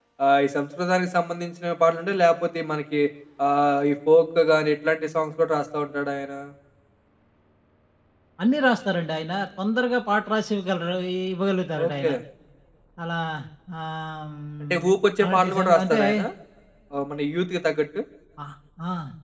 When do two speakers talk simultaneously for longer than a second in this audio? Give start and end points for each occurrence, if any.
14.6-16.0

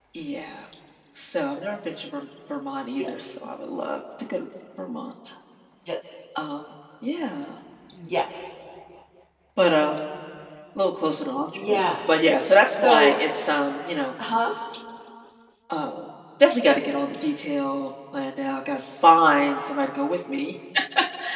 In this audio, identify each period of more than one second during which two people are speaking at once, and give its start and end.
none

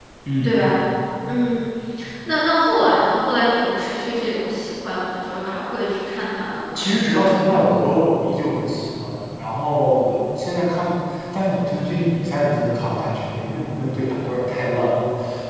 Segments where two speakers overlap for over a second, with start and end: none

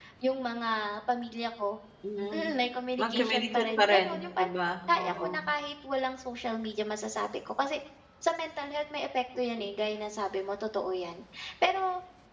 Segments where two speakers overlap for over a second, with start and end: 3.0-4.5

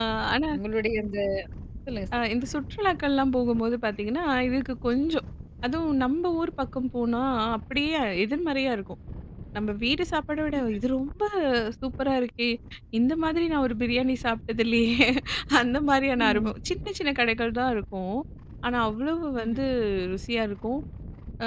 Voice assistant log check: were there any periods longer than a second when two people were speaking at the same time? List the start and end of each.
none

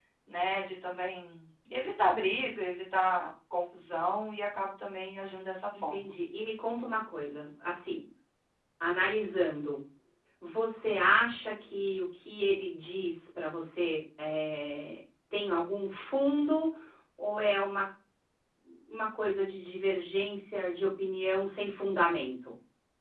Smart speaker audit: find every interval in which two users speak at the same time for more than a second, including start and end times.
none

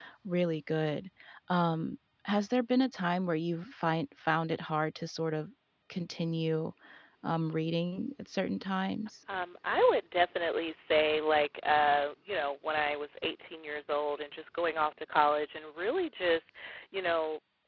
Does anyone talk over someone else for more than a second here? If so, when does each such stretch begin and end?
none

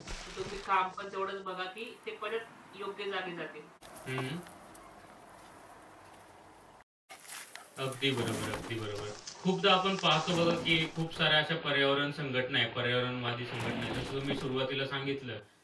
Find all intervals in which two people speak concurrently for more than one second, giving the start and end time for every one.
none

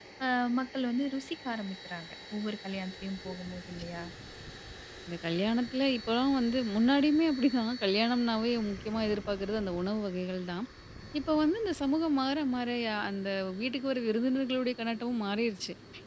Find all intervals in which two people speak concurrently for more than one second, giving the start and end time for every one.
none

